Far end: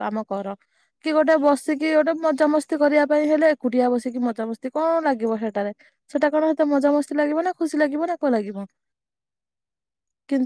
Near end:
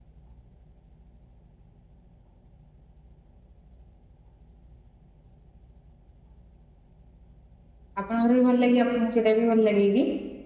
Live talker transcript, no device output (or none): ଆପଣଙ୍କର ବି ଭଲ ଲାଗେ ଆପଣଙ୍କୁ ସେଇଟା ବି ଭଲ ଲାଗେ କି?